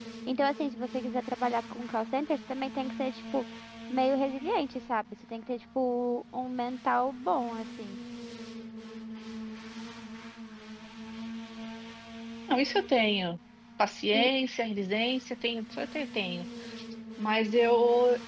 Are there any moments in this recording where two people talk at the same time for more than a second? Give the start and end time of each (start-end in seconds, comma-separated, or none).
none